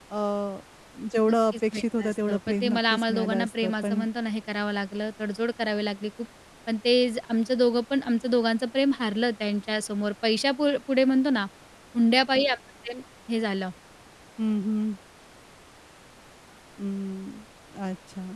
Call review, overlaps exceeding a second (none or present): present